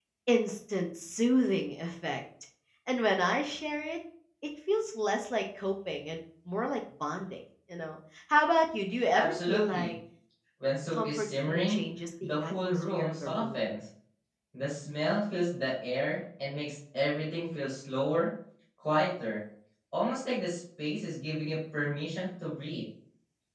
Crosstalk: present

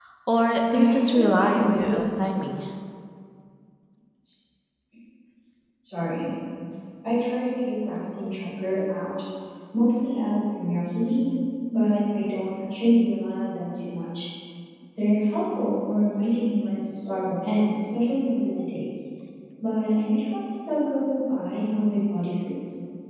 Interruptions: present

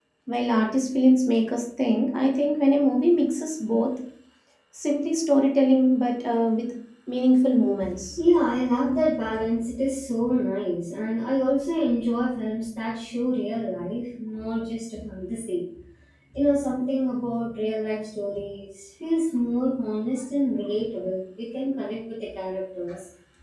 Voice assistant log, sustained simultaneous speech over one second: none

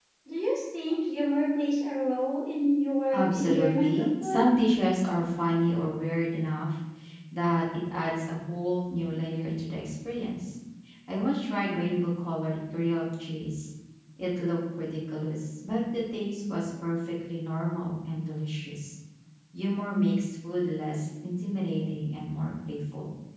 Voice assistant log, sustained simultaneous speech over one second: present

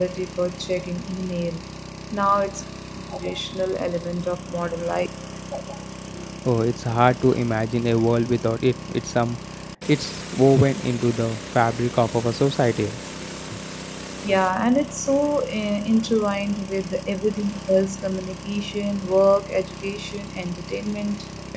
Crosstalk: none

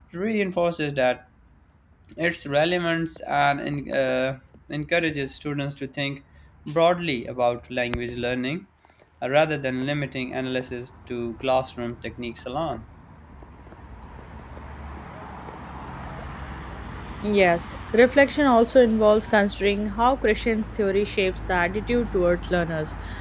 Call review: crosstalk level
none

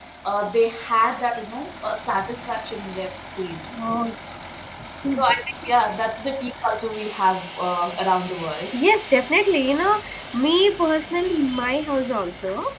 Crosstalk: none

